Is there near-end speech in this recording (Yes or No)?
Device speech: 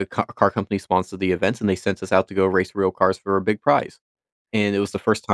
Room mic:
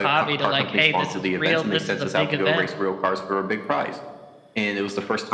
Yes